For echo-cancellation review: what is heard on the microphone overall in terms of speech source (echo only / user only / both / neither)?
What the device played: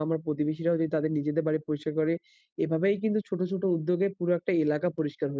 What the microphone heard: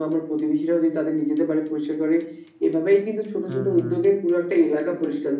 both